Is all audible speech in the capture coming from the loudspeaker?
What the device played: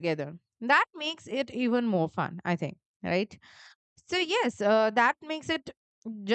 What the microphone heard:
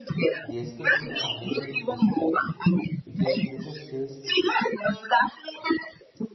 No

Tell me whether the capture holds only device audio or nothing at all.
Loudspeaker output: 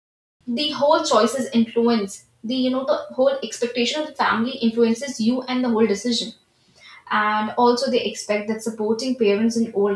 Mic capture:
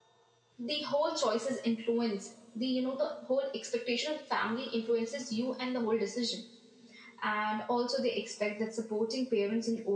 Yes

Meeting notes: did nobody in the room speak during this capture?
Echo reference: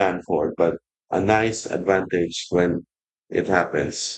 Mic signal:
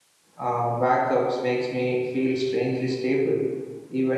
No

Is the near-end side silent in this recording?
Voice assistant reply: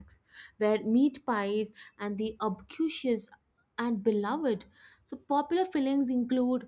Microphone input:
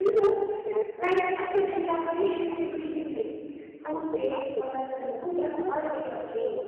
No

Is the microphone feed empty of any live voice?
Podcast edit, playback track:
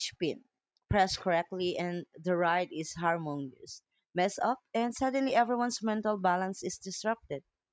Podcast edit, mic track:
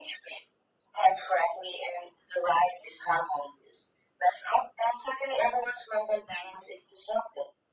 Yes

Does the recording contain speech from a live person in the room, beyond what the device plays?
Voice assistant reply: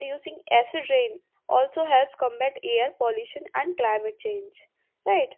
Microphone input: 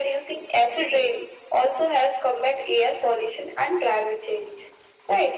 No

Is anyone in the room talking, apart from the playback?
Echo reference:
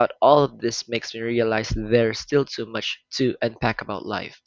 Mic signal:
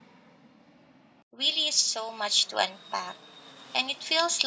Yes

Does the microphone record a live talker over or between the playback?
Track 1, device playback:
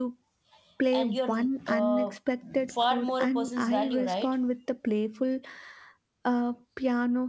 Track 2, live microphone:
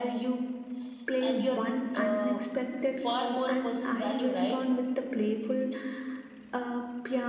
No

